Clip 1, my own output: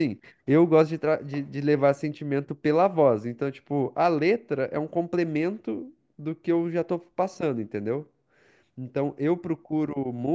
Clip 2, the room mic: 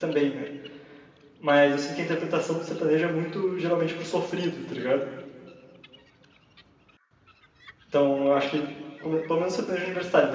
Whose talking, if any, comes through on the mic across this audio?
user only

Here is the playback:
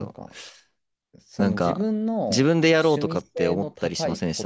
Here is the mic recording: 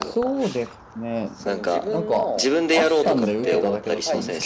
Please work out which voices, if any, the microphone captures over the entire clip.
both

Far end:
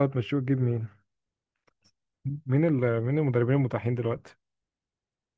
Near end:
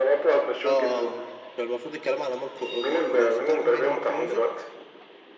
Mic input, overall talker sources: both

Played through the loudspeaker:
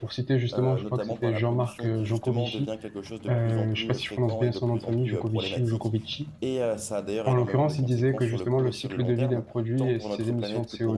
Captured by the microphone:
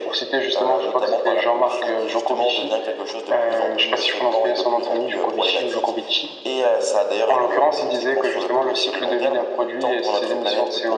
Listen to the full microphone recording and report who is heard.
echo only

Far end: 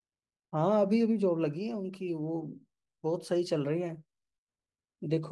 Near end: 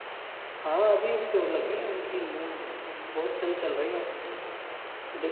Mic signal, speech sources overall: echo only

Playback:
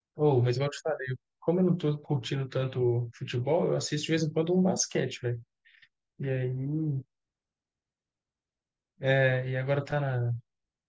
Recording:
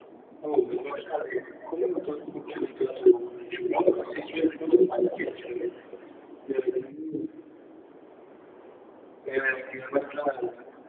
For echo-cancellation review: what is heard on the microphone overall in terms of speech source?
echo only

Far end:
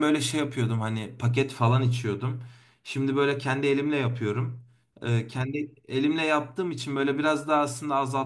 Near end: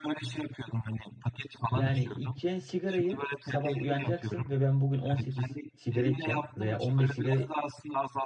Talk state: both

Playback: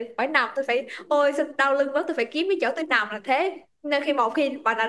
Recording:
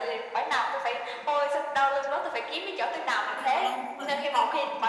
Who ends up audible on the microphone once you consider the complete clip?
both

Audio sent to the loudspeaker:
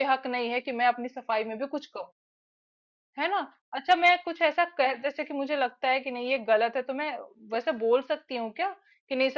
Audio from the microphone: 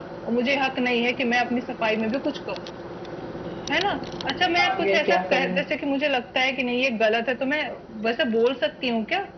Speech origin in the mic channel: both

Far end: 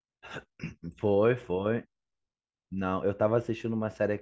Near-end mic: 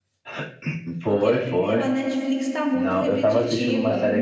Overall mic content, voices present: both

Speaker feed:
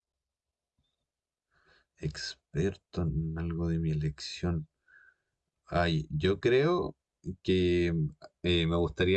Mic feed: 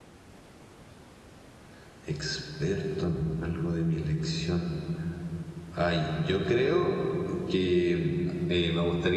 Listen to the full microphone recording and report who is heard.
echo only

